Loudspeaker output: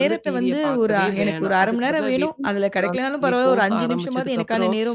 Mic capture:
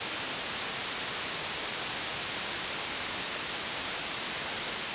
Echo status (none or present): none